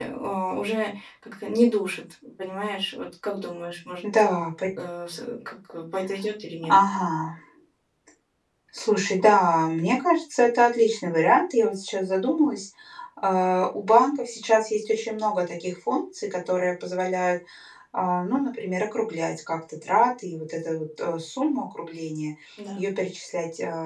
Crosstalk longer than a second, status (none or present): none